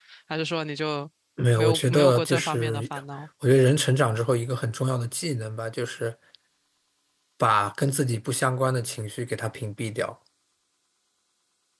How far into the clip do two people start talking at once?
2 s

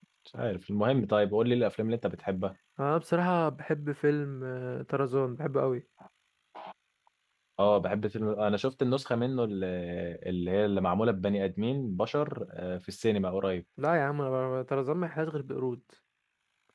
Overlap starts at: none

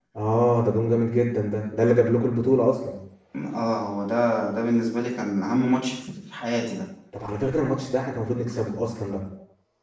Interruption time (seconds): none

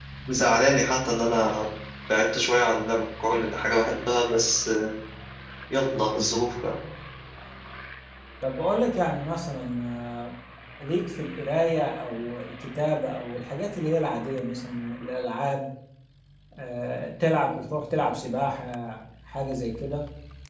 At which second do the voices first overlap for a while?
none

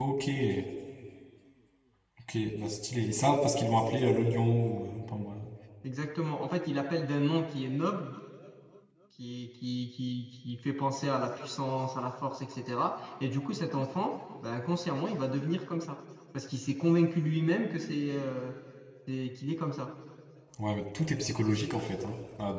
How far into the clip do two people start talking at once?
none

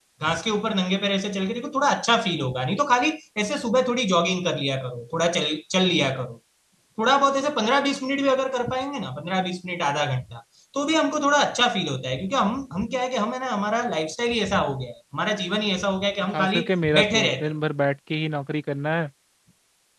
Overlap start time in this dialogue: 16 s

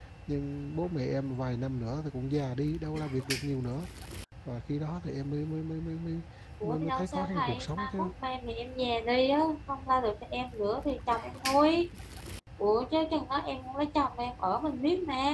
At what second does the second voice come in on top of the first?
7 s

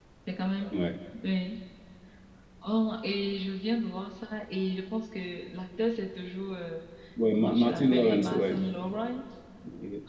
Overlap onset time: 7 s

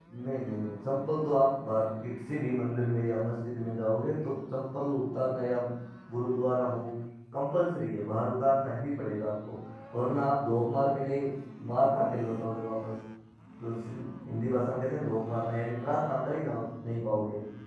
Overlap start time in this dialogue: none

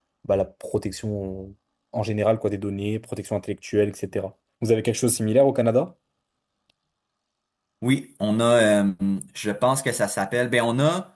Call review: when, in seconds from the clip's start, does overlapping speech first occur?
none

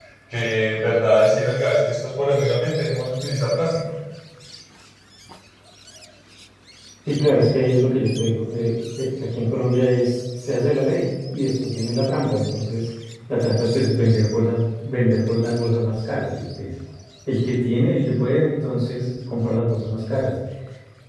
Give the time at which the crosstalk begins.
none

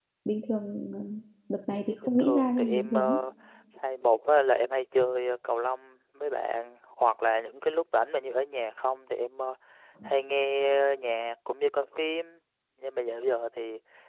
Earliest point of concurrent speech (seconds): 2 s

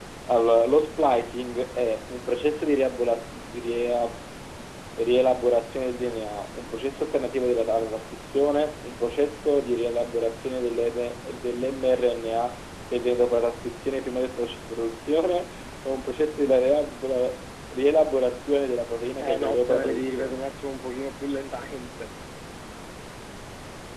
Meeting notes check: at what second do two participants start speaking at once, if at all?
19 s

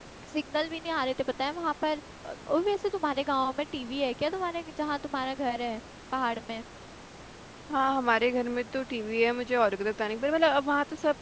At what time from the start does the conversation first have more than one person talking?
none

